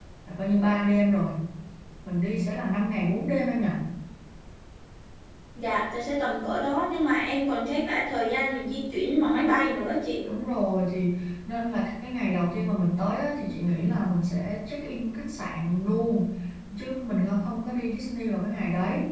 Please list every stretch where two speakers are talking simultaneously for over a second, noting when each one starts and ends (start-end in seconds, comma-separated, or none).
none